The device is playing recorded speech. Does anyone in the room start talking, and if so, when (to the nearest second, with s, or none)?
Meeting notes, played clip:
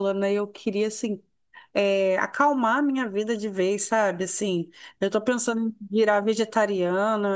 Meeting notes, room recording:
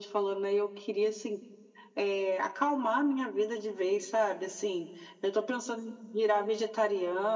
none